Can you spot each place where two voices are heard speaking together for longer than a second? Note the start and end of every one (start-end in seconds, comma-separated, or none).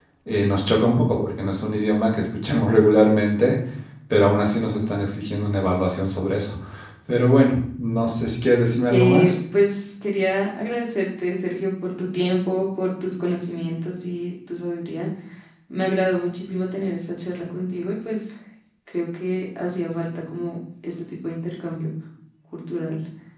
none